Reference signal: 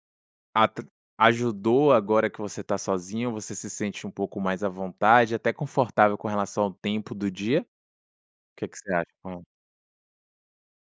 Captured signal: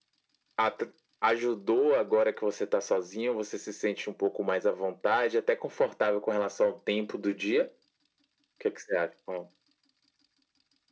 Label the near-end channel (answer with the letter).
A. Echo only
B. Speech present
A